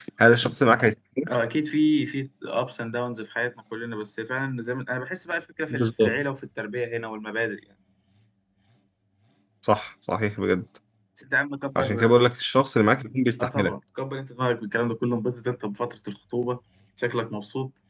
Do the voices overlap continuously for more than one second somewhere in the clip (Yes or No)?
No